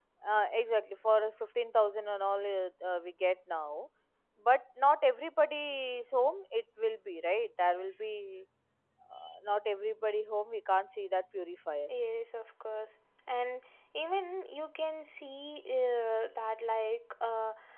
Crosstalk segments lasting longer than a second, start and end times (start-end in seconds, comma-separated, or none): none